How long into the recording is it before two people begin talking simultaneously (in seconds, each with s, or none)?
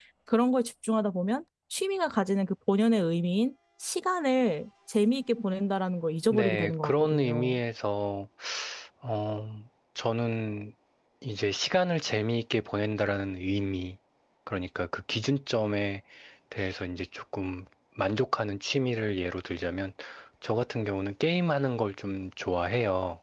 6.3 s